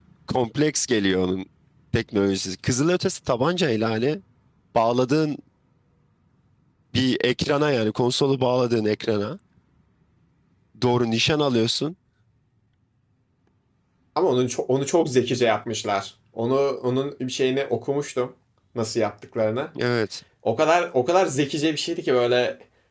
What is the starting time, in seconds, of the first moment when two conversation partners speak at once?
none

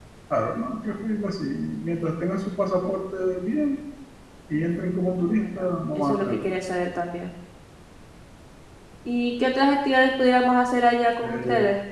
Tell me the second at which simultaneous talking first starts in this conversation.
5.2 s

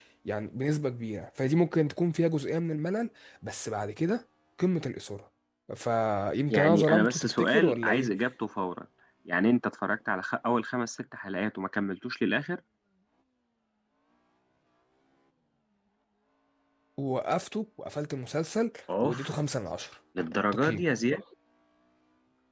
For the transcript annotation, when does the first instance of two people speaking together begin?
6.5 s

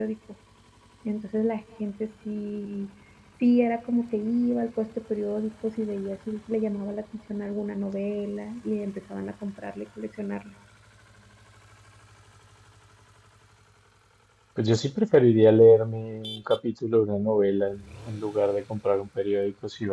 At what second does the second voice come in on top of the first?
none

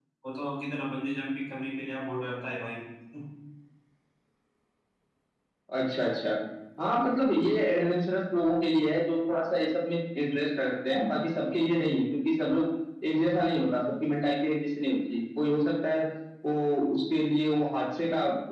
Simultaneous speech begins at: none

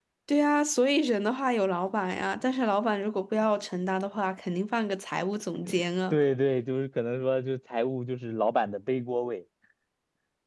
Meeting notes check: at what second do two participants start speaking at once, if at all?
none

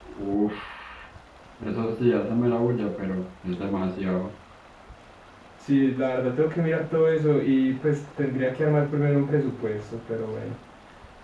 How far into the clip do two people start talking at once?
none

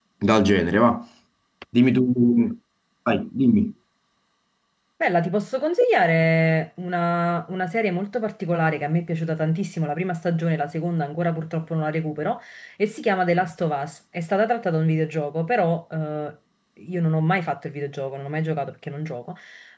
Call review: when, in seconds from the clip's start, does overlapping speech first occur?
none

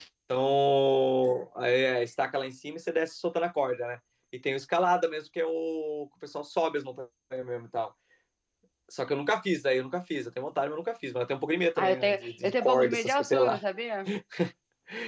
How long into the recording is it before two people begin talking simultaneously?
11.8 s

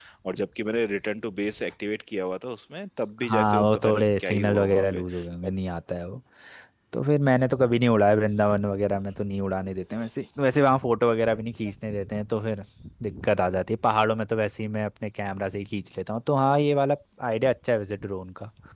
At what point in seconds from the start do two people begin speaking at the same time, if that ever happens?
3.2 s

